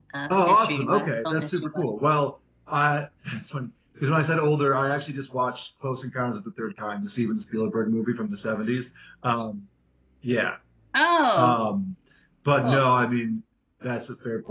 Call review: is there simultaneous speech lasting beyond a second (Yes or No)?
Yes